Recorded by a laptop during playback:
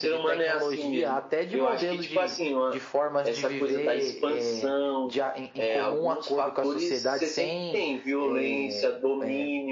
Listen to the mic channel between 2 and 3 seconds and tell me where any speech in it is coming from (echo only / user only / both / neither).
echo only